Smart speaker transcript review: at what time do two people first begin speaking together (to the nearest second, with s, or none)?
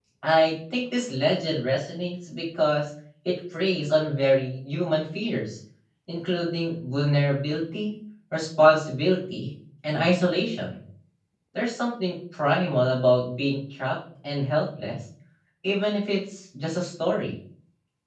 none